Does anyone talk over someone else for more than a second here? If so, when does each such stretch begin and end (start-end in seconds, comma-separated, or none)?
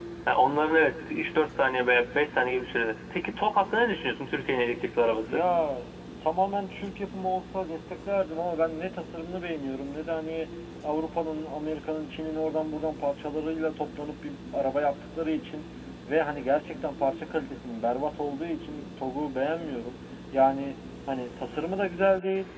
none